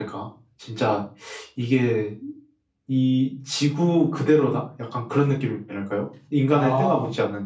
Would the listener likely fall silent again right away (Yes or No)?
Yes